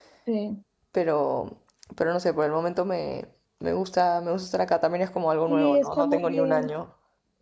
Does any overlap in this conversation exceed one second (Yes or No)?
Yes